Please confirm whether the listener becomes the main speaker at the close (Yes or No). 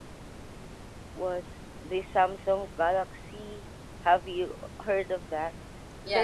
Yes